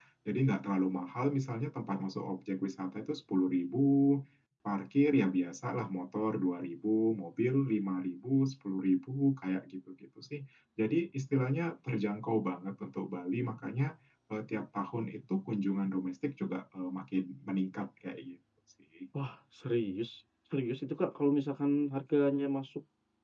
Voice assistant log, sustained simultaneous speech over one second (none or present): none